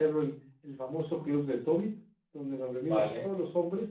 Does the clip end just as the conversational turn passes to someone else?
No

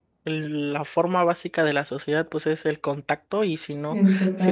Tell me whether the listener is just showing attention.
Yes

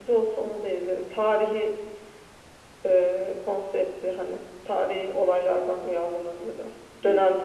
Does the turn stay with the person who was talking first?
No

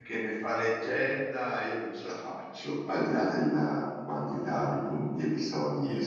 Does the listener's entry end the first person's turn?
Yes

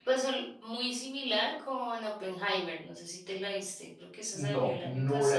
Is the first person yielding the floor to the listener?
Yes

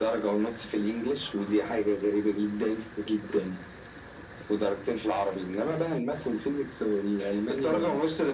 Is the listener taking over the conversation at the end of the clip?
Yes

